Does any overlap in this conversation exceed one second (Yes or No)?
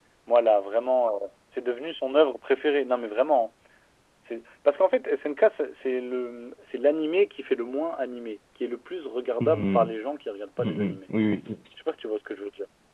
No